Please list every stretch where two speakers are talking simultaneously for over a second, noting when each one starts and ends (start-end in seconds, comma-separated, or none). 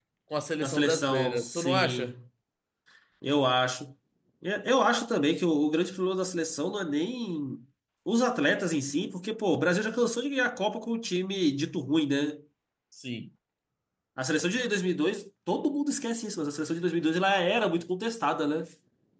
0.6-2.1